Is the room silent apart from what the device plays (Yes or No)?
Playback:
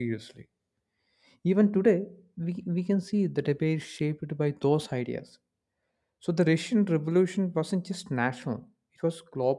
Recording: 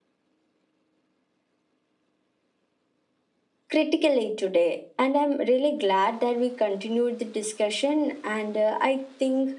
No